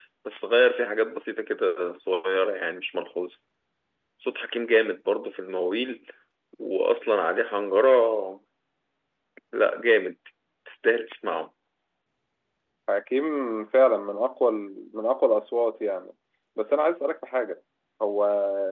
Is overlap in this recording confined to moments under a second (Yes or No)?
Yes